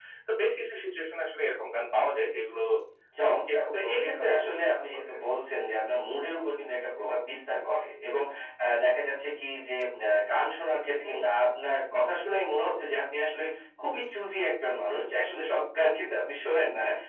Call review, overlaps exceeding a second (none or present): present